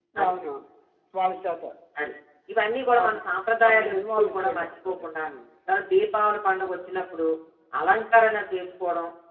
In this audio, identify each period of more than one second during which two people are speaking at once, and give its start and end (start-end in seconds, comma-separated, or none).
3.6-5.2